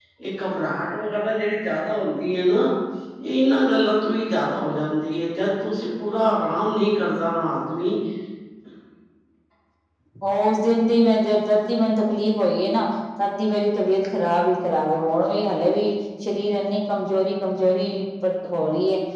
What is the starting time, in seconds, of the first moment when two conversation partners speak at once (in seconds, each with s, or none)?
none